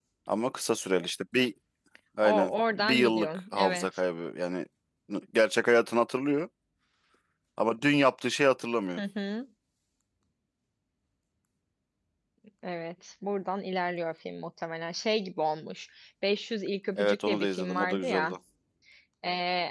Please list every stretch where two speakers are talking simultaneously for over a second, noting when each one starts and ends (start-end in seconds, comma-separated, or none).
2.2-3.9, 17.0-18.3